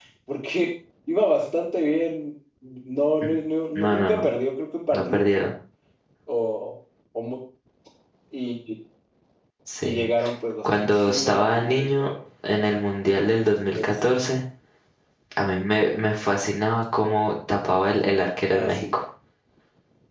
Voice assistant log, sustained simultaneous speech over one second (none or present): present